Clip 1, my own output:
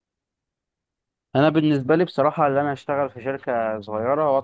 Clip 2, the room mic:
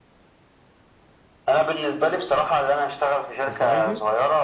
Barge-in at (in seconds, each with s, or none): 3.5 s